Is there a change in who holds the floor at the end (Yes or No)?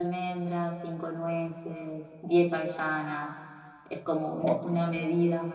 No